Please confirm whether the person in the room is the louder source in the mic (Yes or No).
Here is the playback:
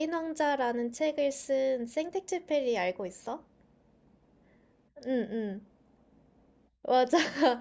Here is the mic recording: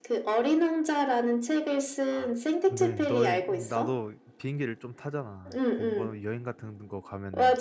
No